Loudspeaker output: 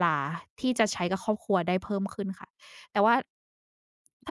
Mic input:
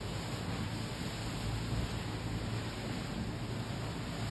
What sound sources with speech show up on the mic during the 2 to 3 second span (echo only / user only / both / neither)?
neither